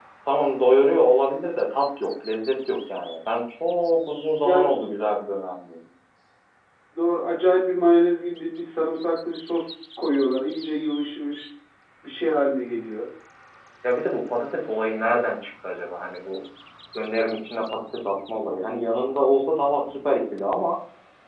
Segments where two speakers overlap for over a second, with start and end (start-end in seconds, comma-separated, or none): none